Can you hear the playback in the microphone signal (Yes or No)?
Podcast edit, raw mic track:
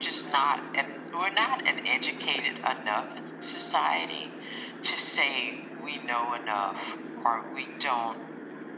Yes